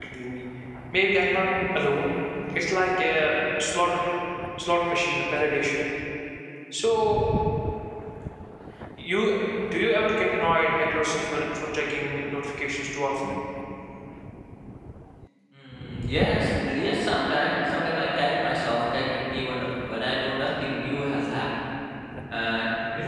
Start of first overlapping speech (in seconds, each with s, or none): none